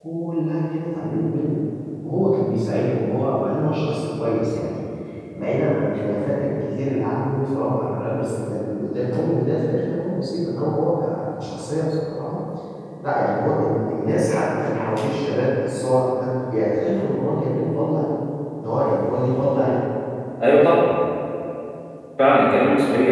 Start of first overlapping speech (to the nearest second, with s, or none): none